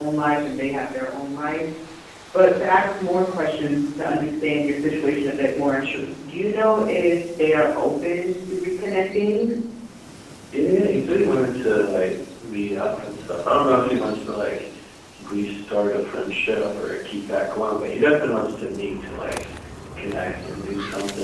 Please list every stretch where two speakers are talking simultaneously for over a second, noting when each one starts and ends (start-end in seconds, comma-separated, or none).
none